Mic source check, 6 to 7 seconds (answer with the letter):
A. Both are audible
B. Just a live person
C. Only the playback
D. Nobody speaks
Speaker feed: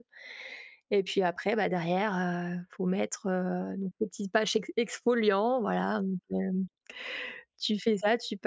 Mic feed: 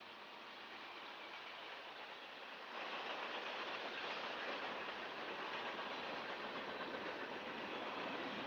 D